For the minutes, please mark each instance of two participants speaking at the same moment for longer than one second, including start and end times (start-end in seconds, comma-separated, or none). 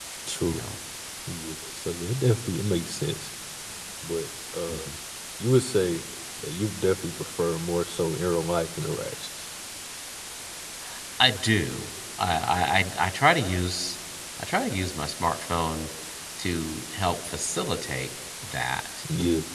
none